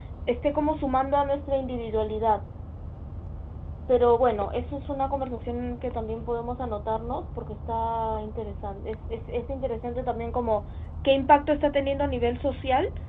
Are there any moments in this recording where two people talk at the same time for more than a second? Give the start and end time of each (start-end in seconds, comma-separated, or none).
none